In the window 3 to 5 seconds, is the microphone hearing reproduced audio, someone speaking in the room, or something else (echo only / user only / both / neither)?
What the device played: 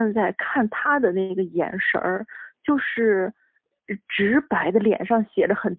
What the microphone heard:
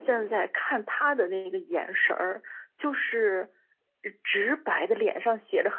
echo only